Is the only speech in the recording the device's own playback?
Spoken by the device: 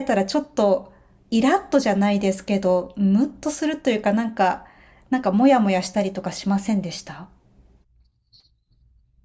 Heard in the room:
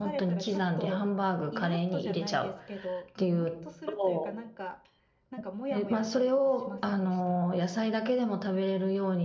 No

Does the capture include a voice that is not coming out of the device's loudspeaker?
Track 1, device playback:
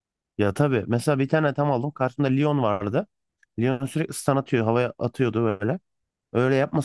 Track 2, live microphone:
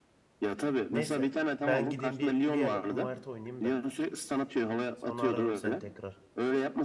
Yes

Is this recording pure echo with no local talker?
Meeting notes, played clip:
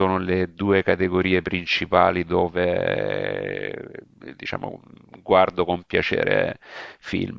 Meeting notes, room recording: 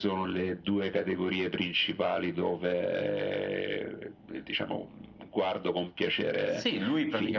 No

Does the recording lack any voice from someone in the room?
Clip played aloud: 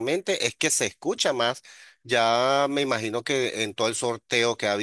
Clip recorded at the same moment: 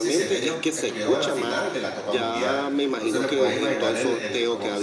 No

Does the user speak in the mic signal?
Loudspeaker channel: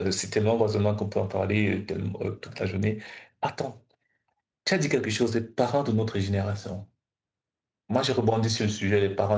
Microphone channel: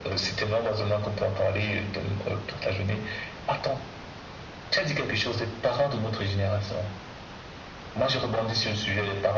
No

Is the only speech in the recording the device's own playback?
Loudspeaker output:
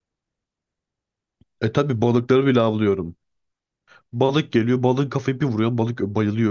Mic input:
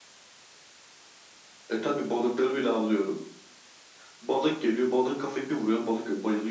Yes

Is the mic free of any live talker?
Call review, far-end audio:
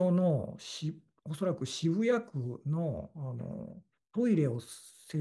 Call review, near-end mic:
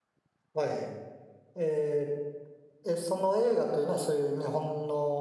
No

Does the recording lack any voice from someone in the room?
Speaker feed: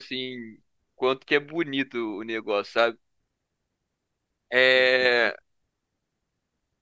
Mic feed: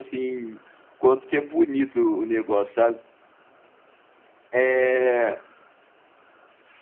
Yes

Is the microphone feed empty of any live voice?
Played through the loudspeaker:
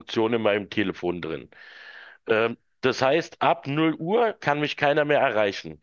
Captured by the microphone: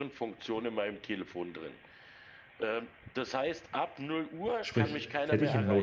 No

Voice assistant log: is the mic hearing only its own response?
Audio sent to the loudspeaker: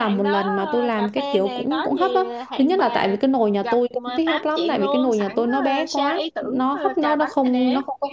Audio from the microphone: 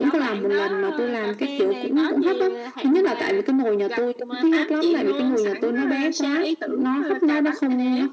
Yes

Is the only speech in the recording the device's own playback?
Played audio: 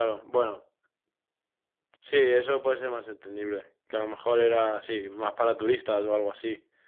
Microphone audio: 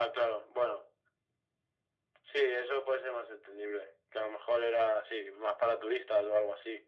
Yes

